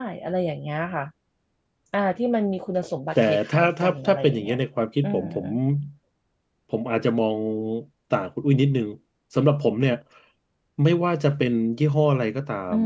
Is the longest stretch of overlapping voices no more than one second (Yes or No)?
No